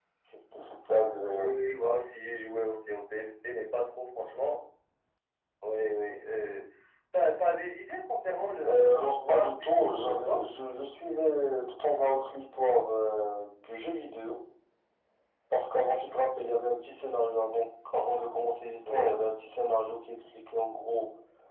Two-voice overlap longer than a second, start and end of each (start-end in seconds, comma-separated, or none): 8.6-10.4